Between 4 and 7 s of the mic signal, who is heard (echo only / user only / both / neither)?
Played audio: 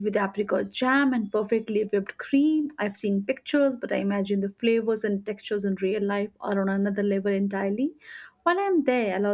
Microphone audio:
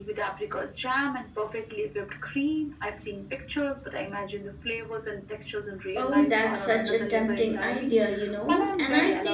both